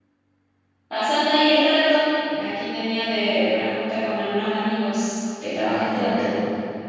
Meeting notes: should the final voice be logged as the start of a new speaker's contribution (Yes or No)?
Yes